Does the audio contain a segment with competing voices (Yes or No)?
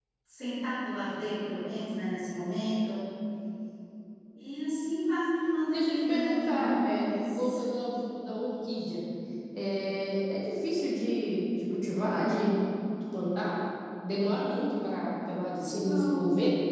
Yes